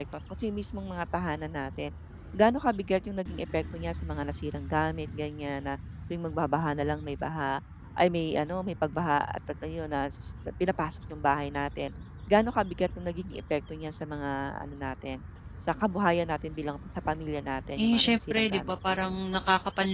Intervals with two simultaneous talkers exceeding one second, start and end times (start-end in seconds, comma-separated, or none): 17.8-19.2